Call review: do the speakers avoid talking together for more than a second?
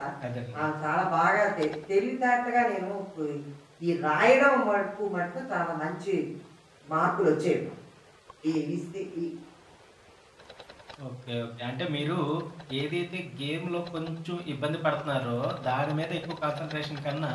Yes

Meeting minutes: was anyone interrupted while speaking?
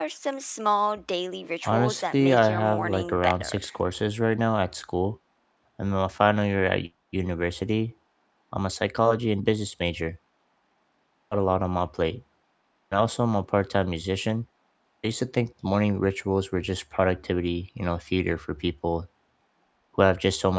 Yes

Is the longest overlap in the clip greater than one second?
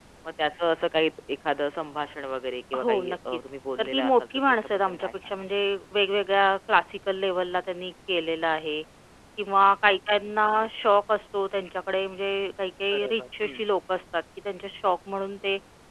Yes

